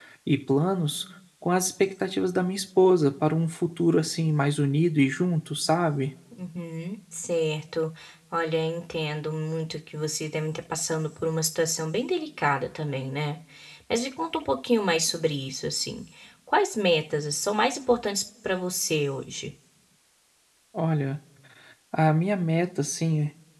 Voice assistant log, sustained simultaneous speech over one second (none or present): none